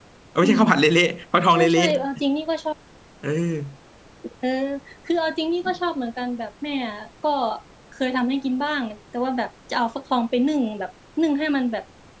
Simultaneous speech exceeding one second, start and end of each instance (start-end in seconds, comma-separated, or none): none